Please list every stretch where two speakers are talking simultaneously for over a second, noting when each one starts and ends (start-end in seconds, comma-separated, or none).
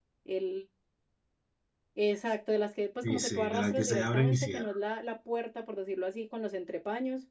3.0-4.8